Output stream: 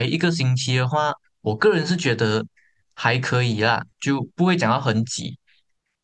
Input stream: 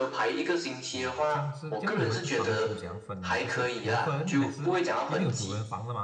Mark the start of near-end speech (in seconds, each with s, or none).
0.9 s